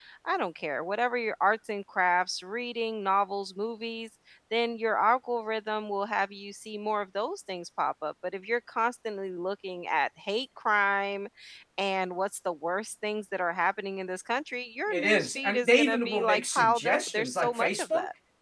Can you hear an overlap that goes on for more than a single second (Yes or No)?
Yes